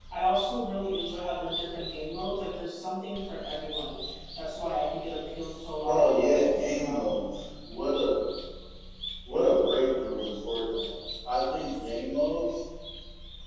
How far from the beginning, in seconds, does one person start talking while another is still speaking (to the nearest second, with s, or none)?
6 s